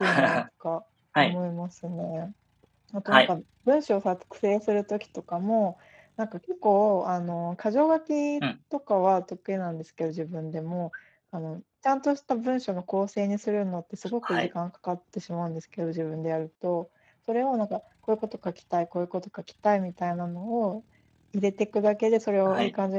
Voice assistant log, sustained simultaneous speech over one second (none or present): none